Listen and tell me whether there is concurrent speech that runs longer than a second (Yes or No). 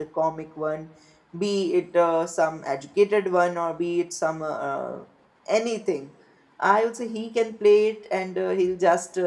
No